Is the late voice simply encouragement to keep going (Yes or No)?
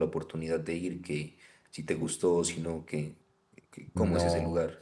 No